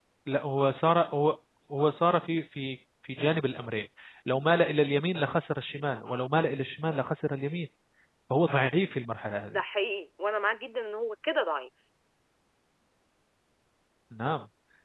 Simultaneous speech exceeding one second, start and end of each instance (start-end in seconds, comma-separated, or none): none